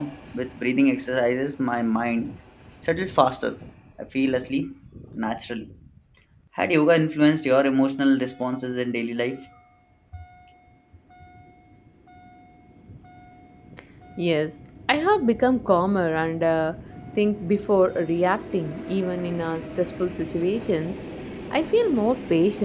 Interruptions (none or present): none